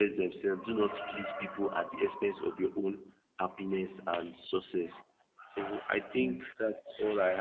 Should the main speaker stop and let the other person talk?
No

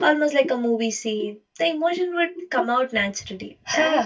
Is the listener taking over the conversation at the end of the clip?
Yes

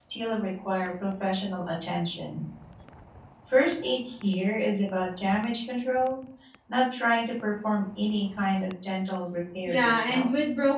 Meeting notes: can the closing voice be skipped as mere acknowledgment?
No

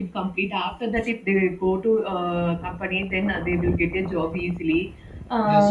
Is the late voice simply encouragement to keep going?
No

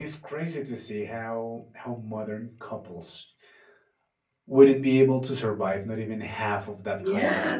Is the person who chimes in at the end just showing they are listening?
No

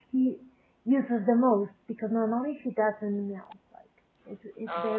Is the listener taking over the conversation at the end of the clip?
No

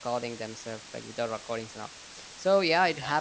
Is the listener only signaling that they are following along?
Yes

